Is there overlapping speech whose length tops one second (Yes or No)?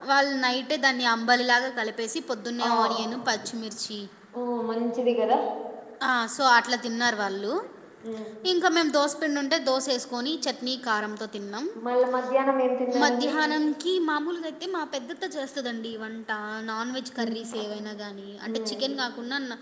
No